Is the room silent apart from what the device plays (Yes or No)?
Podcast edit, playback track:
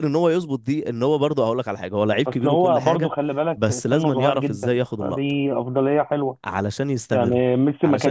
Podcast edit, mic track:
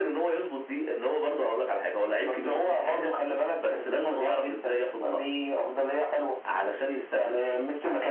Yes